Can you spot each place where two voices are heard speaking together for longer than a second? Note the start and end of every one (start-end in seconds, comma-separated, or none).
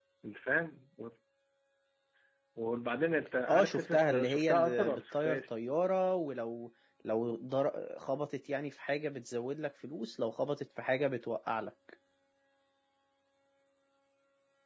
3.5-5.5